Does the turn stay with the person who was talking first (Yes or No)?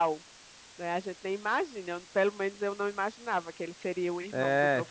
No